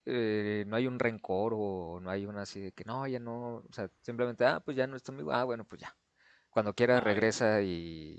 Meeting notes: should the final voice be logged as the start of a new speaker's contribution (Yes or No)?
No